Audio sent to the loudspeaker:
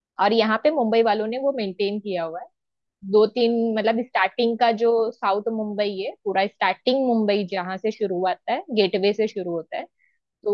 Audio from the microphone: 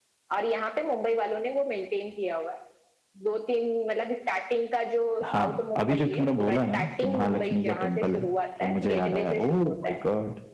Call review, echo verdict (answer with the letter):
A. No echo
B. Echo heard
B